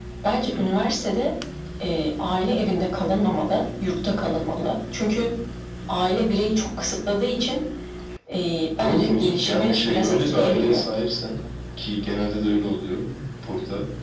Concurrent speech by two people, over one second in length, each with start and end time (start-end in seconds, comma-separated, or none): 8.8-10.8